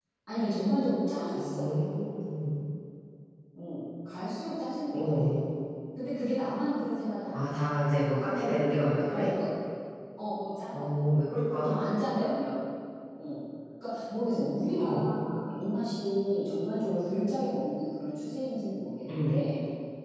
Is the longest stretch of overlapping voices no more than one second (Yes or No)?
Yes